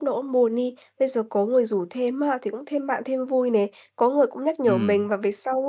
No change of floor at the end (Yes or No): Yes